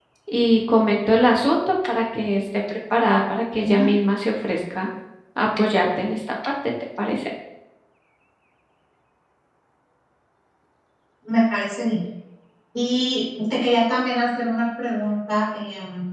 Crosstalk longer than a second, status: none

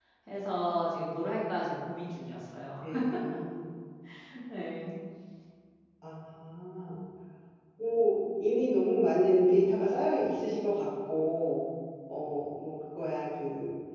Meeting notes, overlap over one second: none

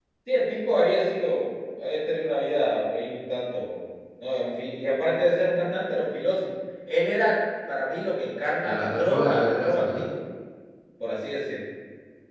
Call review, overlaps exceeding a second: present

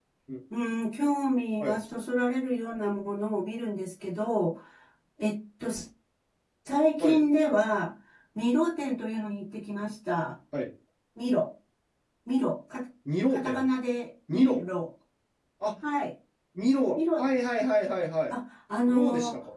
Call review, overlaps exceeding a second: none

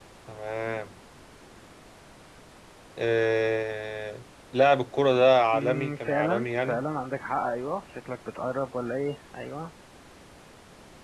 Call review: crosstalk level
present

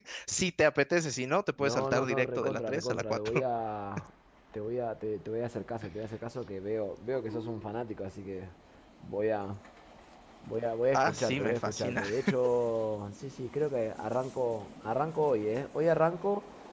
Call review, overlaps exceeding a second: present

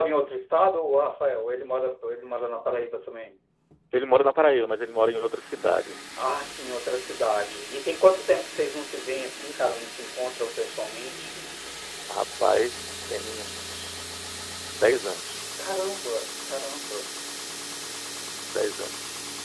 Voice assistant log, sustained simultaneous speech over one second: none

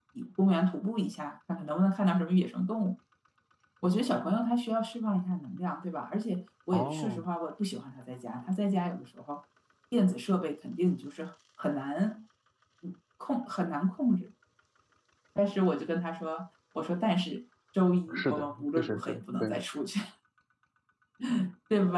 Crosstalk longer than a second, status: present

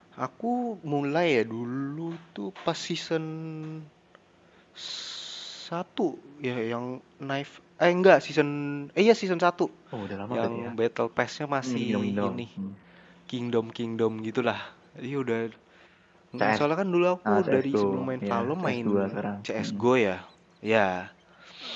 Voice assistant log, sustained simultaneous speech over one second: present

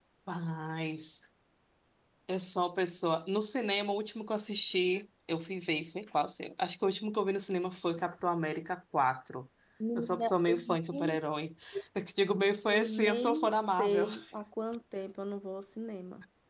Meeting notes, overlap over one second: present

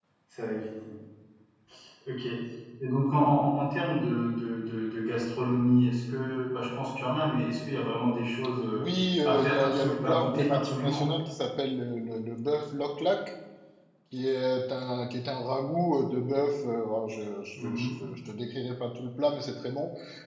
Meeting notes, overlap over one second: present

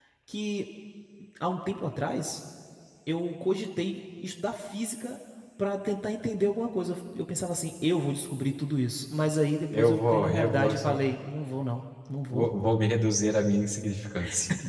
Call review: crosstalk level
present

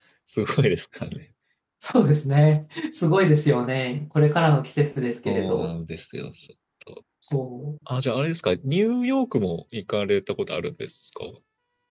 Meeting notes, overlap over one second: none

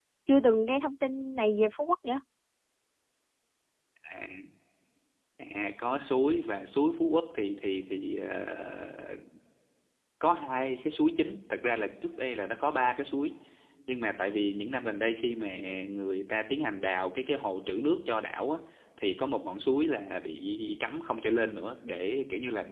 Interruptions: none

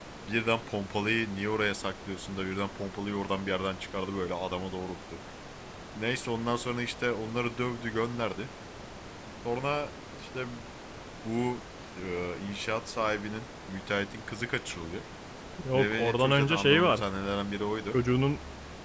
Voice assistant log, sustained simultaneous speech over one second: present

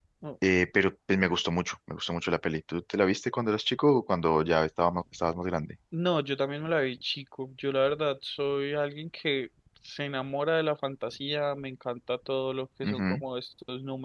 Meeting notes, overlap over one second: none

